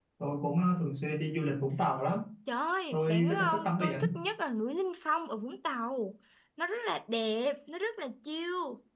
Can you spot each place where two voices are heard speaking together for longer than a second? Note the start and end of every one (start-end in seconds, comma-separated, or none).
2.9-4.2